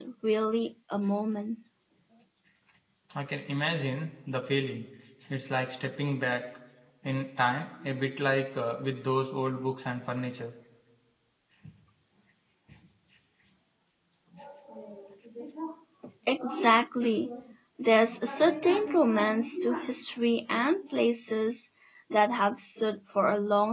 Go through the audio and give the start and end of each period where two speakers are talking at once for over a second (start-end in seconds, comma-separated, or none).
none